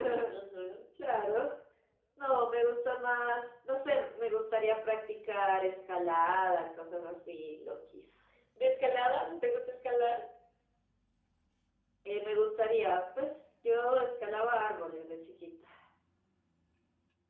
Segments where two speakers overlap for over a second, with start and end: none

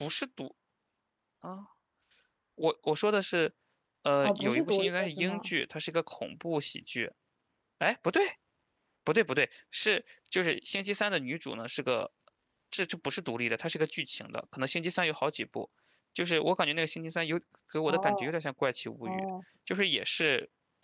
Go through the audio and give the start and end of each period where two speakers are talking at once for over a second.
4.2-5.5

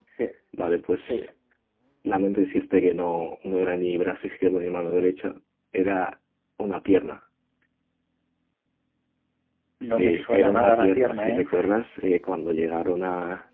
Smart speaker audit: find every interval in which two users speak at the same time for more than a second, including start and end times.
9.9-11.7

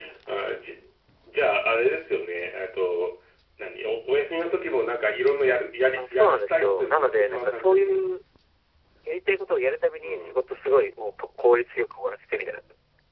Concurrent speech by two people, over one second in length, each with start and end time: 6.0-8.0

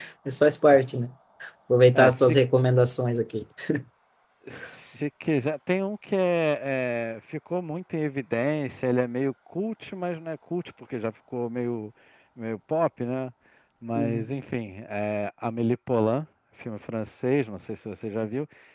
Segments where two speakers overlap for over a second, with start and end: none

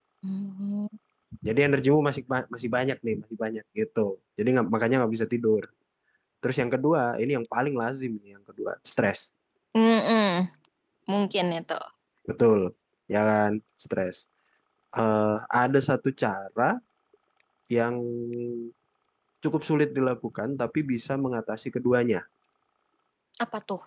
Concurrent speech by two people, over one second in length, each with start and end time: none

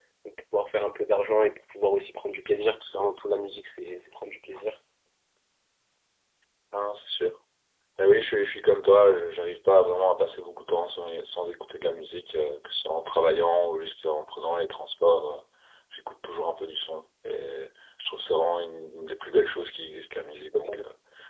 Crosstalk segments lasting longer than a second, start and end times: none

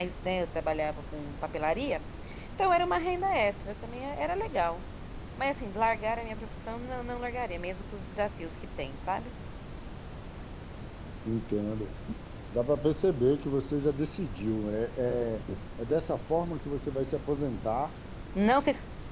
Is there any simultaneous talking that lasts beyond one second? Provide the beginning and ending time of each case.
none

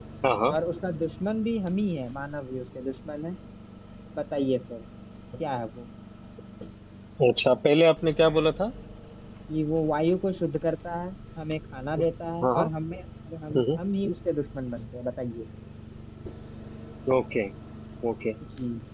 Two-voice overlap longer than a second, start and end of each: none

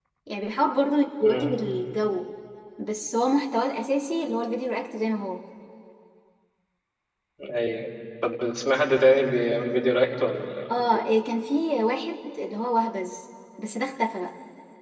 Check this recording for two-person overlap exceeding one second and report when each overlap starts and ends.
none

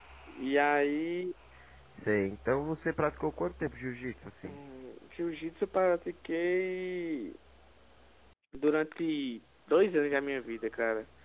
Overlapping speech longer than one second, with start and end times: none

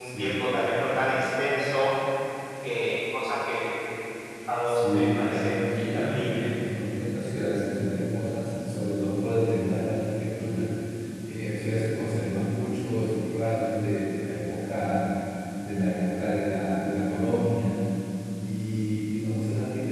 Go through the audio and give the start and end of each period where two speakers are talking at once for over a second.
4.7-6.5

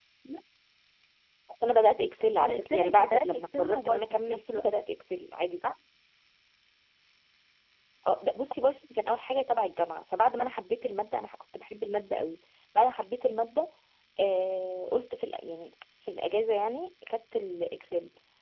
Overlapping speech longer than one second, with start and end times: 2.4-4.6

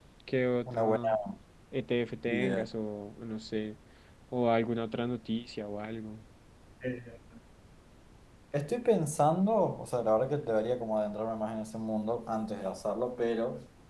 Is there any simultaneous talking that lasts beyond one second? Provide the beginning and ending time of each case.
none

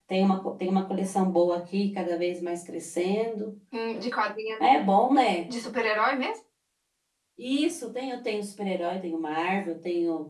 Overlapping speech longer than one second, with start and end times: none

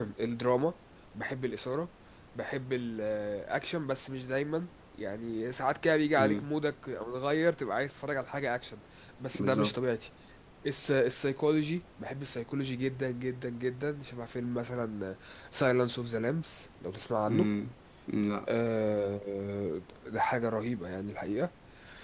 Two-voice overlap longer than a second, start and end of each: none

